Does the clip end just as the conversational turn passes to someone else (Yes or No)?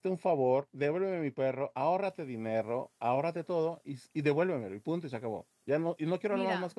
Yes